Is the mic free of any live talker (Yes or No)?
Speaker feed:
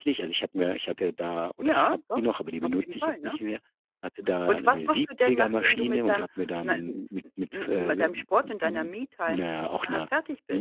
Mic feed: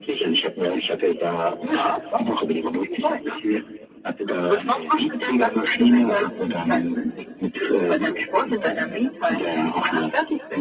Yes